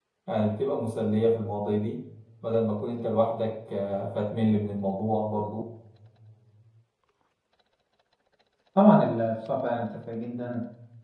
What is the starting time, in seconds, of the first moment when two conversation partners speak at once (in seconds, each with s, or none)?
none